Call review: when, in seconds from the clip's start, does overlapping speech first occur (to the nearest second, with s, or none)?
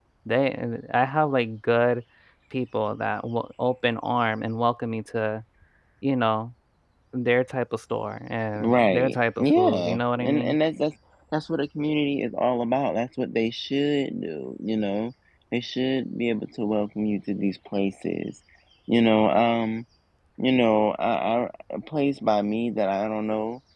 9 s